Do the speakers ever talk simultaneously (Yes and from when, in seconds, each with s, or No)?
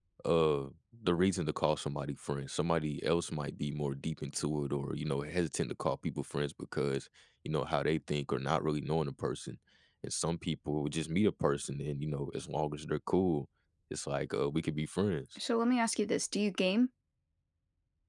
No